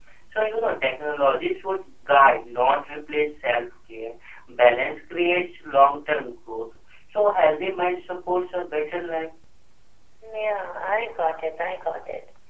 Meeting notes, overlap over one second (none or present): none